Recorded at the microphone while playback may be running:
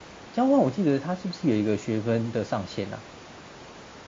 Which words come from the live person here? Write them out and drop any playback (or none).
交换，我记得它是不是有一个学分的上限啊？